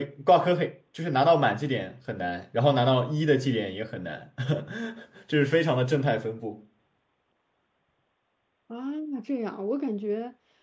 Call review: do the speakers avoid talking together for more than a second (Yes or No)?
Yes